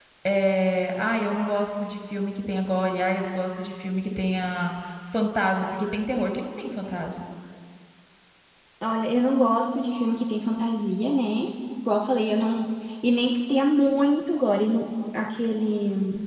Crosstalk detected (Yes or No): No